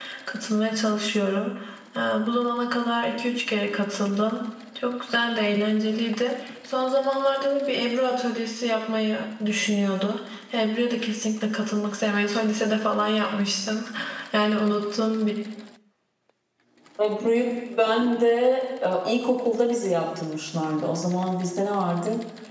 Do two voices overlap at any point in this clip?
No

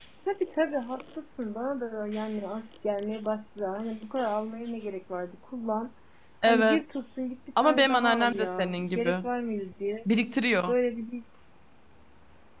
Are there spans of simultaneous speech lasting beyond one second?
Yes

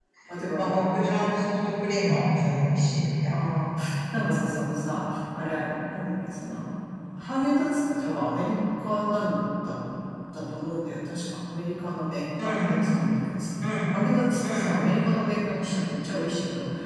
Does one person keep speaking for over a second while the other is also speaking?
No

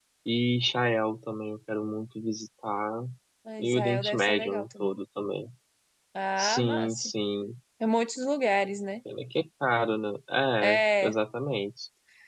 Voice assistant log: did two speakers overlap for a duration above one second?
Yes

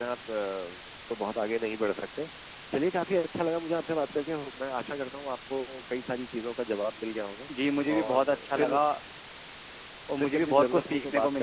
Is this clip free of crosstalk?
No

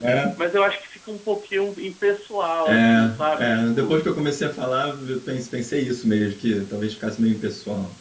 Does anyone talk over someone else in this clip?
Yes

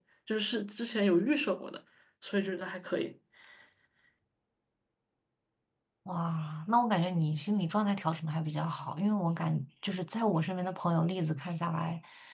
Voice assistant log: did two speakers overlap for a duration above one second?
No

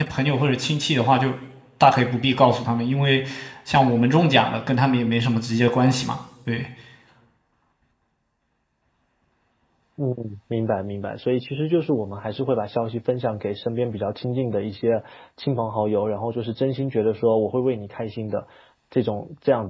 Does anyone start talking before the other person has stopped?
No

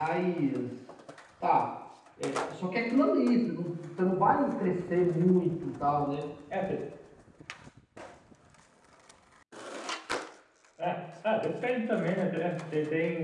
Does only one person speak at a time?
Yes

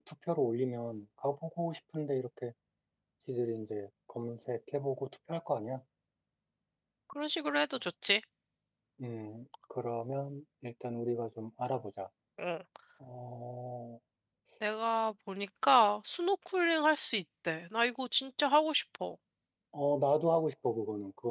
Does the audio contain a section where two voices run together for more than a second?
No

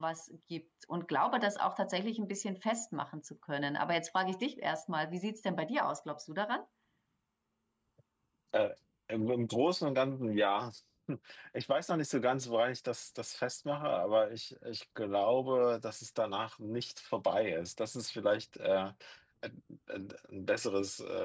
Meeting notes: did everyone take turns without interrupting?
Yes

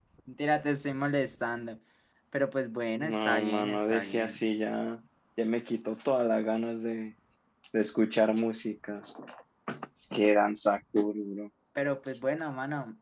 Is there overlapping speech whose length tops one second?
Yes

